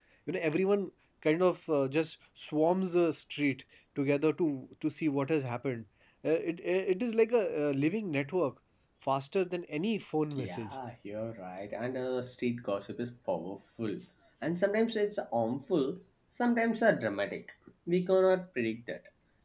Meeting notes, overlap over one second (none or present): none